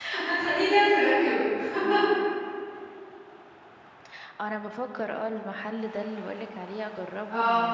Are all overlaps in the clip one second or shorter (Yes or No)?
Yes